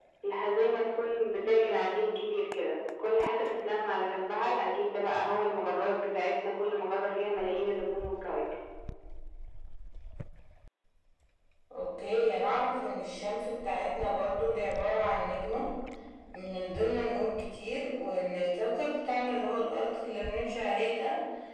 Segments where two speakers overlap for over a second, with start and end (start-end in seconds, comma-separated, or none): none